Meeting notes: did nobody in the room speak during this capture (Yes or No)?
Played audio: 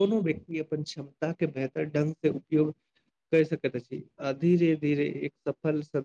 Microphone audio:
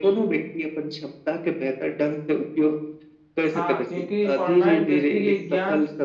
No